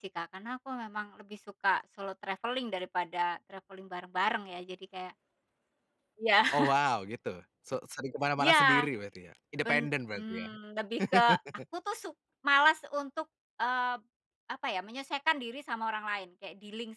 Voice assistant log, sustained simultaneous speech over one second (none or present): none